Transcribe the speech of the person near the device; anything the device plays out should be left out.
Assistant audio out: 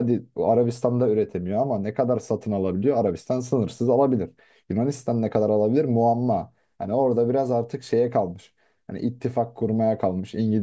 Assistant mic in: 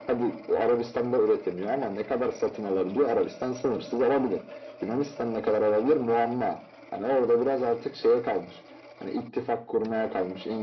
none

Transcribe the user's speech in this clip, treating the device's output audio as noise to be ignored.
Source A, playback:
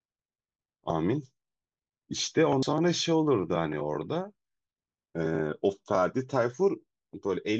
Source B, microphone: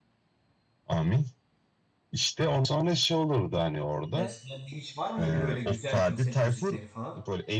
Ya sende hiç var mıydı böyle güzel kaset müzikleri falan?

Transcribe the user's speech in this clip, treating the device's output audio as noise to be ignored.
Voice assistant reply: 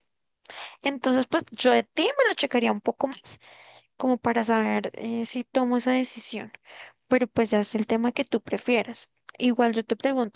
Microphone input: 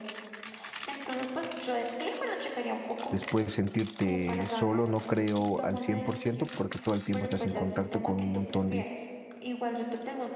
después sentirte solo no creo al 100% porque todo el tiempo estás en contacto con un montón de,

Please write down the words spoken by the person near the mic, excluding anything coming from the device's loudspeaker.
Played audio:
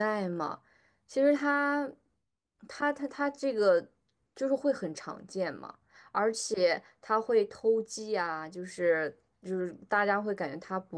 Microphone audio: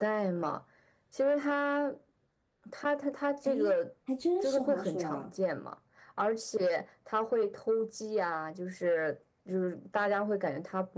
诶，还真是黄鼠狼，

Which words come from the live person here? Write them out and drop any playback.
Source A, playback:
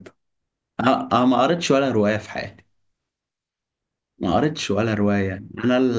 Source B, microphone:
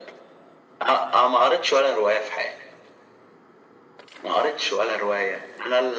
none

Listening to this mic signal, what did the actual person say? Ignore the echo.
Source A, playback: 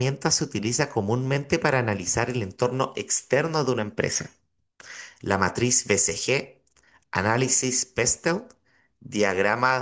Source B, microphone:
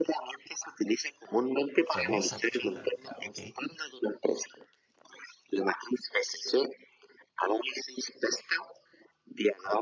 Fue Mozart, chuta. Ya, ok.

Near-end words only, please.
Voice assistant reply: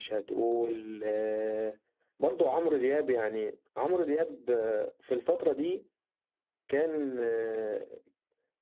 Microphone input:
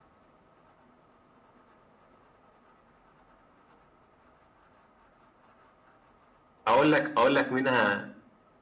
اقول لك اقول لك منها

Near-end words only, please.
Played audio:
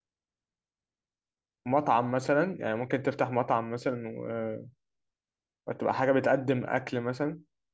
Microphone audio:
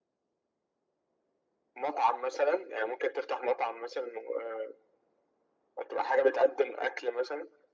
none

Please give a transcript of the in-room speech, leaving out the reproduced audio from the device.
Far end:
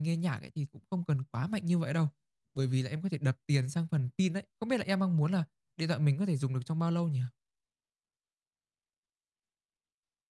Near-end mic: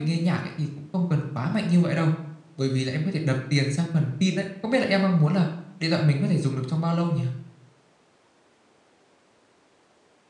none

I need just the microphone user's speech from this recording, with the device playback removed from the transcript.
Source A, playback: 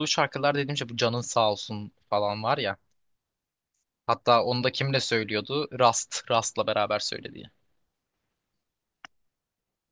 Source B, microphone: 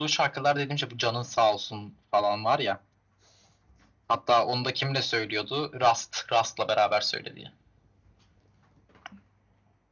none

